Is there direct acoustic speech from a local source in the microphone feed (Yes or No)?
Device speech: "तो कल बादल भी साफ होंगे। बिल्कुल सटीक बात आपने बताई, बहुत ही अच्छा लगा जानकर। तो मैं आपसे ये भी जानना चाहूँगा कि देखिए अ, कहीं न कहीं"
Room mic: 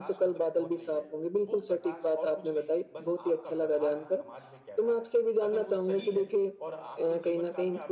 Yes